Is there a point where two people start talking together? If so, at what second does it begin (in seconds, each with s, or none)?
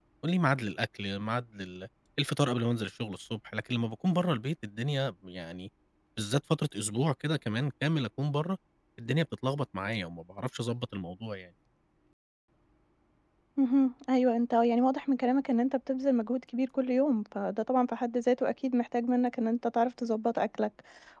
none